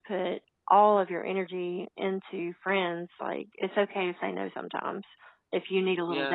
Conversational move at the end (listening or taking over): taking over